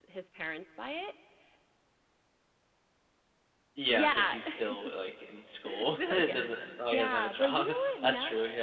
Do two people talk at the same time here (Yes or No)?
Yes